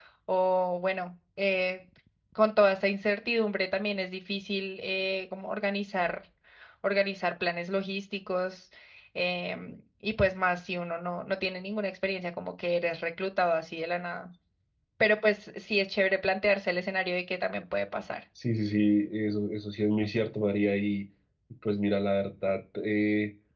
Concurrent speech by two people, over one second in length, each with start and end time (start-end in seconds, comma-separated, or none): none